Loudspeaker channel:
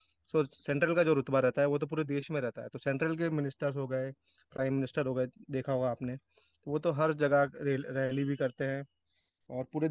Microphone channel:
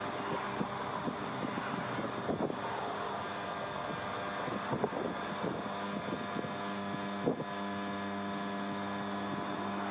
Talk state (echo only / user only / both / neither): neither